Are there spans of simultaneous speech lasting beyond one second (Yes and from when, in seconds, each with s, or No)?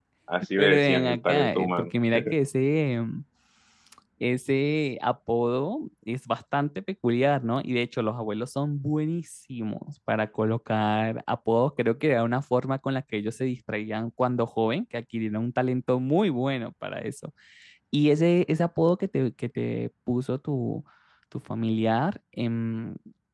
Yes, from 0.6 s